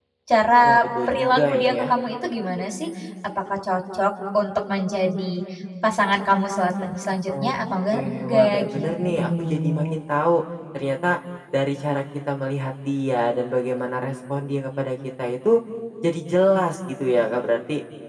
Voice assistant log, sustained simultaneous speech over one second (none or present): present